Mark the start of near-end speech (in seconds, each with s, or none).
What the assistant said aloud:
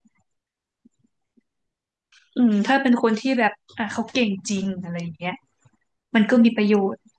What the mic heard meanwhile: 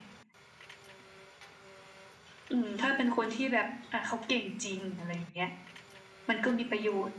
none